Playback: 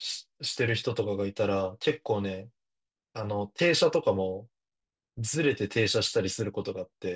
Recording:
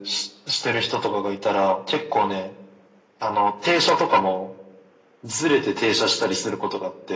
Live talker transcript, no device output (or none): none